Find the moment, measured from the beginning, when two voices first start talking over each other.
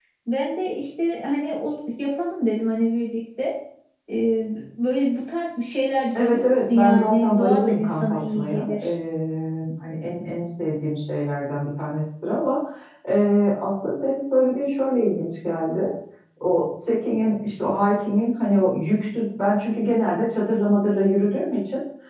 6.1 s

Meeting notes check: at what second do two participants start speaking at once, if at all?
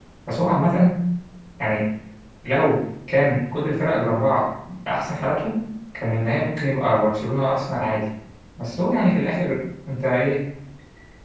none

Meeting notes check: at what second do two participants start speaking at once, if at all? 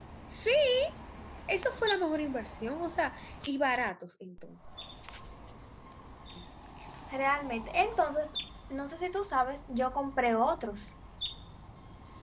none

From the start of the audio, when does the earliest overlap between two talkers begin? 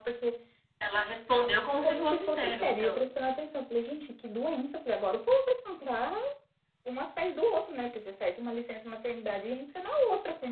1.8 s

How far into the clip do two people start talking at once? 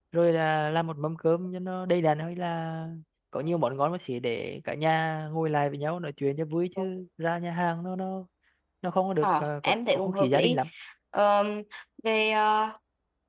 9.2 s

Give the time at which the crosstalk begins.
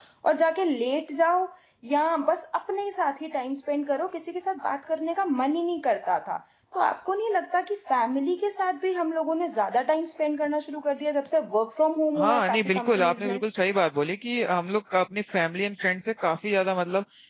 12.2 s

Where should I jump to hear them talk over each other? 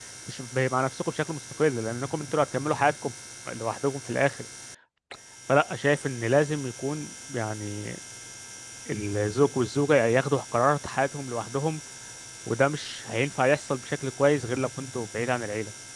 none

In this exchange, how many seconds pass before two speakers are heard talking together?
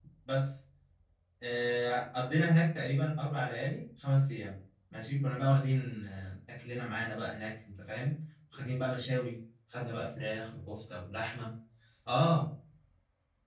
none

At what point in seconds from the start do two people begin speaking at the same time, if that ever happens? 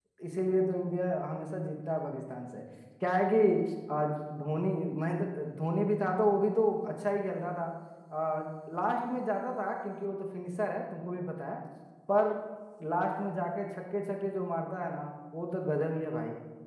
none

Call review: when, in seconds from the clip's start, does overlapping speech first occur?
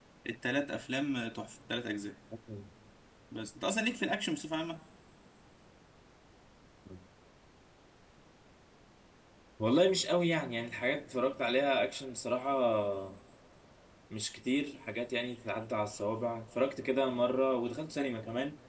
none

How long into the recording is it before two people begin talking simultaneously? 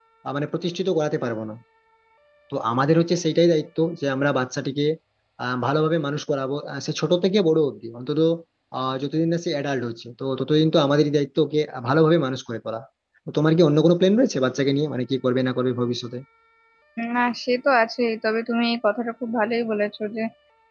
none

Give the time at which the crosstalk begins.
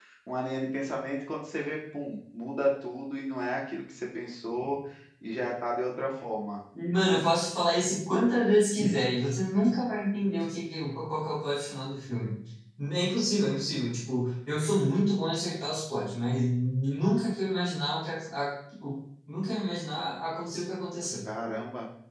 none

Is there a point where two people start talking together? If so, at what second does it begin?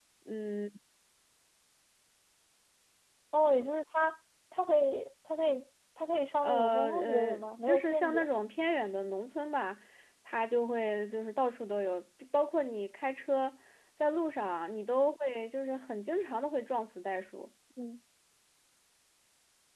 6.4 s

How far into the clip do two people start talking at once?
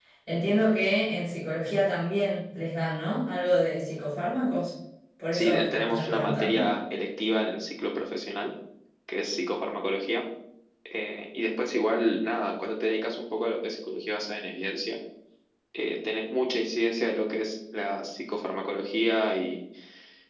5.3 s

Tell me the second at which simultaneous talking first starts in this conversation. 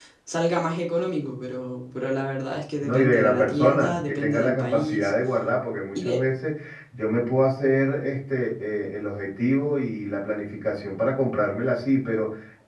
2.8 s

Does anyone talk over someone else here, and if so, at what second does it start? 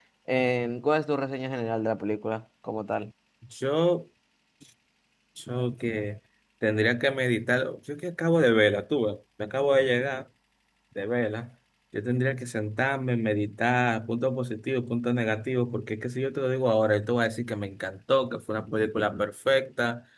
none

